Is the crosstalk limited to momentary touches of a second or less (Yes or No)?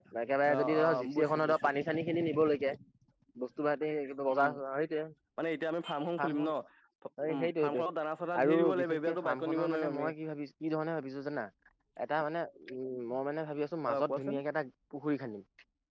No